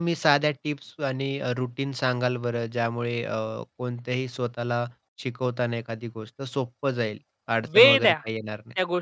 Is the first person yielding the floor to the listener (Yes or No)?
Yes